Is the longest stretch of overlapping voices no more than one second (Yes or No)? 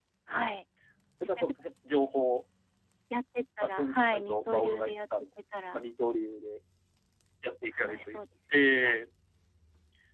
No